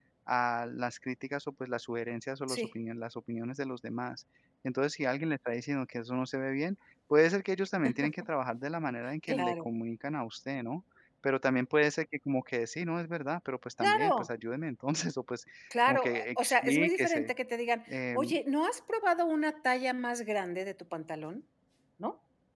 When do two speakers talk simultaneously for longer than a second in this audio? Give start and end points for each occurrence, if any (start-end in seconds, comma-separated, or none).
15.8-17.3